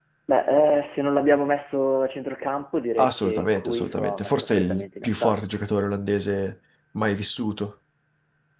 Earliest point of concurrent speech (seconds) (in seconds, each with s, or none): 3.0 s